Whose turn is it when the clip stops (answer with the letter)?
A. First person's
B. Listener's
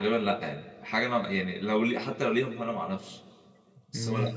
B